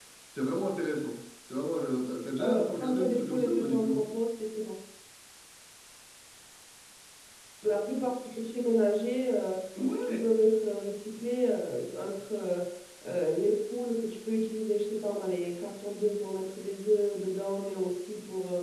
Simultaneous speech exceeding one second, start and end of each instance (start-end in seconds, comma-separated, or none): 2.4-4.0